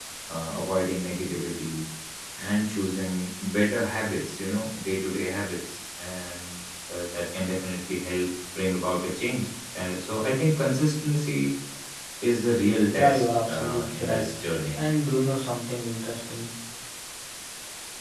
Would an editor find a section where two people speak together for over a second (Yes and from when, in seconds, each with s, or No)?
Yes, from 13.0 s